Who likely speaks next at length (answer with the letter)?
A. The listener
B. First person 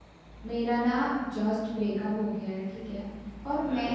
B